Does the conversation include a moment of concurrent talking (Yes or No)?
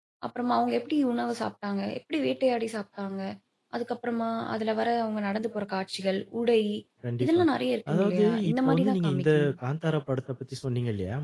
Yes